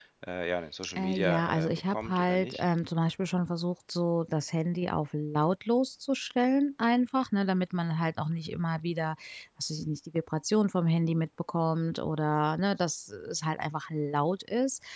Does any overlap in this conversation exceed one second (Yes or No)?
Yes